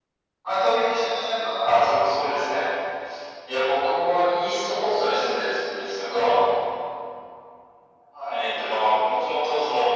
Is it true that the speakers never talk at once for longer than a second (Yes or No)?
Yes